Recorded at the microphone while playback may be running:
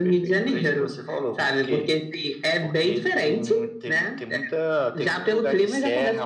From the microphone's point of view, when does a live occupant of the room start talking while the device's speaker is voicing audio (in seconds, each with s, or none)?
none